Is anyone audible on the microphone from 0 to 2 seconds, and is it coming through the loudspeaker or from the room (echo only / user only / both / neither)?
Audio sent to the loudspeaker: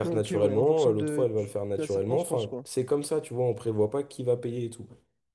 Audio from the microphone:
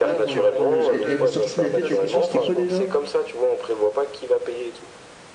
both